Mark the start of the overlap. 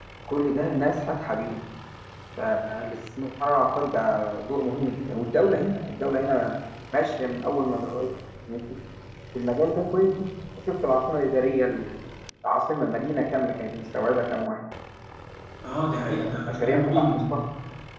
16.1 s

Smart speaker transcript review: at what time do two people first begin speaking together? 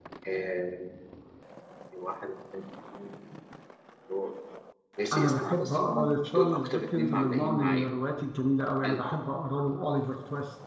5.1 s

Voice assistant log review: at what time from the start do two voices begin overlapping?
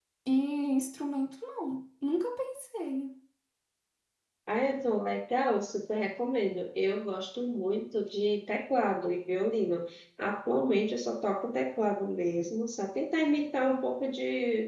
none

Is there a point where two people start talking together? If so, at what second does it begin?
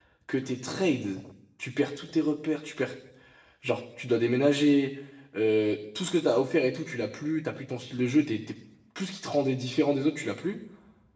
none

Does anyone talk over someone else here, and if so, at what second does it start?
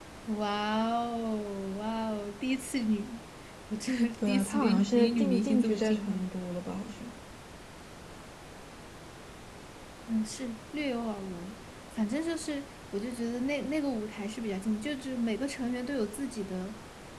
4.2 s

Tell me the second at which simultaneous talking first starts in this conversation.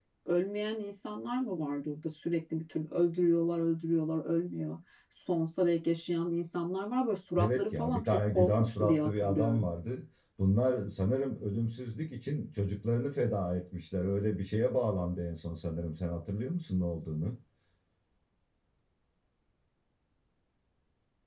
7.4 s

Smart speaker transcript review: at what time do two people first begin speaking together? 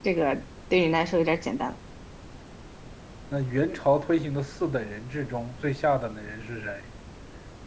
none

